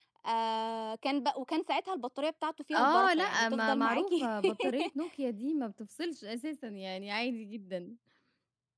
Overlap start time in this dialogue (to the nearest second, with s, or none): 3 s